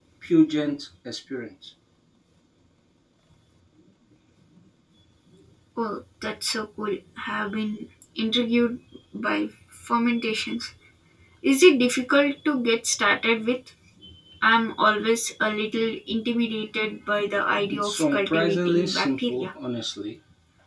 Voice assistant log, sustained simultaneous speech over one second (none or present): present